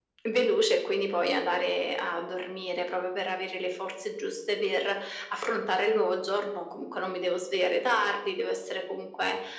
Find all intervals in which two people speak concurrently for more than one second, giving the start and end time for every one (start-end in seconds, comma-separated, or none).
none